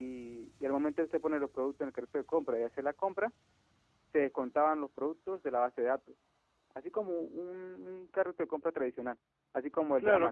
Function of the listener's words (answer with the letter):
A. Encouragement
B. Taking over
B